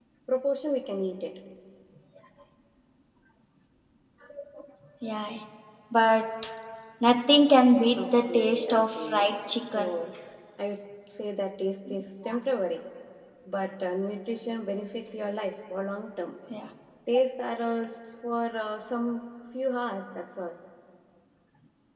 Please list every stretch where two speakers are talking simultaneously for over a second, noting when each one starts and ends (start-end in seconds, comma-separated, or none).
8.0-9.3